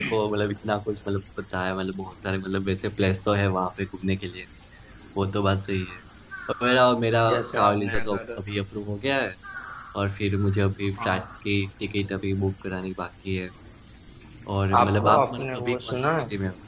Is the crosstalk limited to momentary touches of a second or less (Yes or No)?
No